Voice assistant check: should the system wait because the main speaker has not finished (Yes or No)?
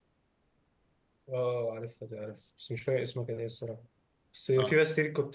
Yes